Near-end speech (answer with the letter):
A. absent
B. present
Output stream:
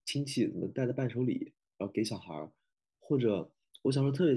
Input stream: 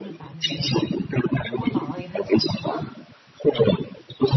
B